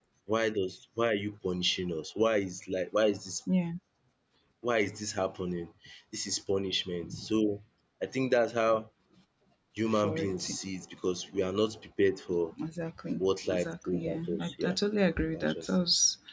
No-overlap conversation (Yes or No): No